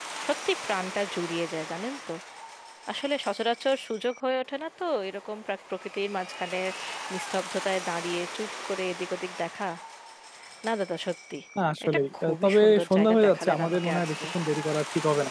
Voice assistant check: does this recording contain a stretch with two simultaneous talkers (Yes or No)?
Yes